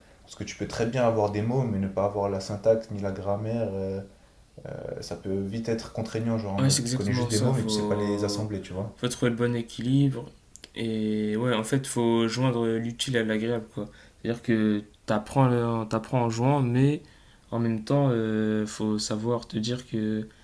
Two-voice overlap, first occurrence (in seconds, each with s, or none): 6.6 s